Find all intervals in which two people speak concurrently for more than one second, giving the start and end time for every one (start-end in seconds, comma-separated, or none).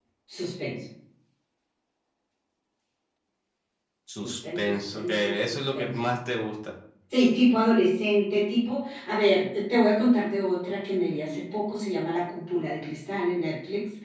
4.2-6.0